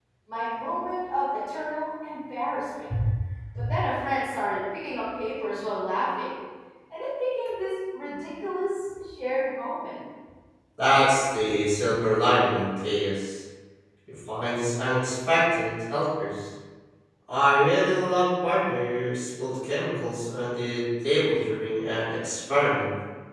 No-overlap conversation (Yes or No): Yes